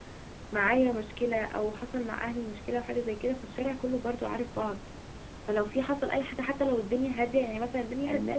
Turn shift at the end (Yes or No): No